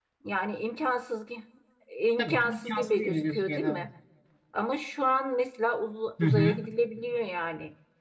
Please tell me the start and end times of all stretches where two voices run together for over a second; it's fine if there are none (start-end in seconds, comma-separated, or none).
2.2-3.9